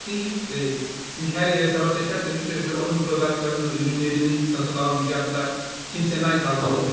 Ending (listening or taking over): listening